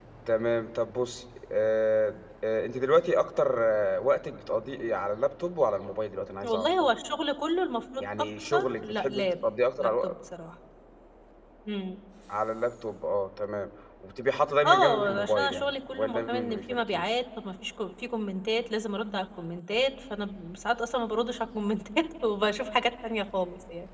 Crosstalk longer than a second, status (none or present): present